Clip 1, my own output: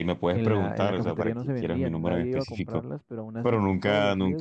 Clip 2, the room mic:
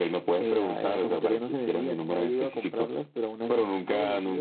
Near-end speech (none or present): none